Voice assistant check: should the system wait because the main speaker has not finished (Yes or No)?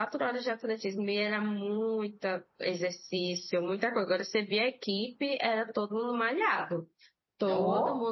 Yes